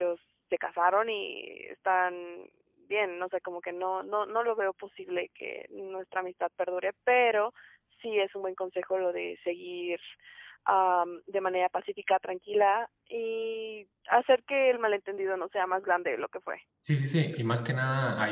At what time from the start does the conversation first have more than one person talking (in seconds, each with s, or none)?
none